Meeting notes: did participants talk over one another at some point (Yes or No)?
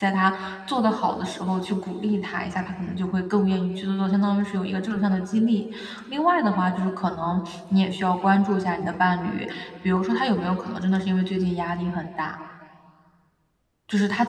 No